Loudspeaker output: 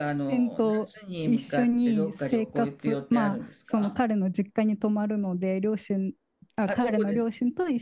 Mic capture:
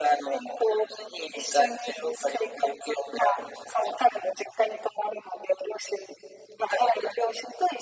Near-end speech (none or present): none